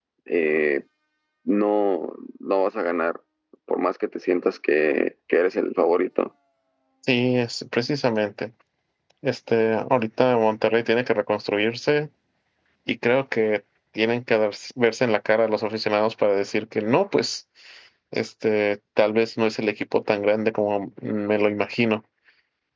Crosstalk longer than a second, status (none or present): none